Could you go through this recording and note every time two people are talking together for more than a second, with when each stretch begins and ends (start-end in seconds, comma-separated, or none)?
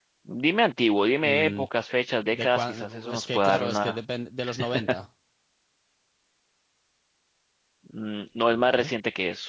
2.3-4.0